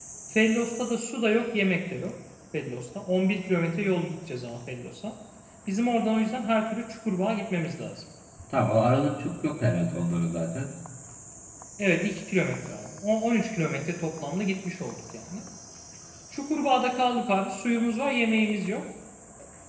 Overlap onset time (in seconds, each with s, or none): none